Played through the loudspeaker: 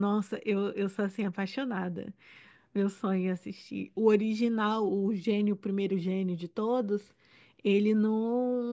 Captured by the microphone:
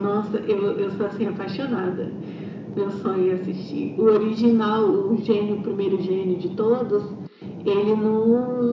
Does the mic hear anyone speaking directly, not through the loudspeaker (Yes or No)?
No